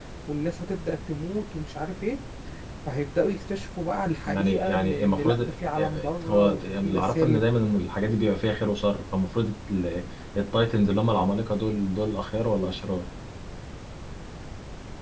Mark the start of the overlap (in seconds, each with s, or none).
4.3 s